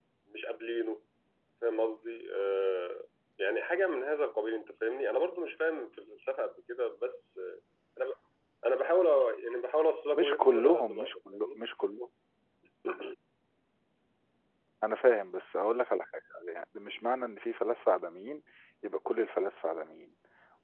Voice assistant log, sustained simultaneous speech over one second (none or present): present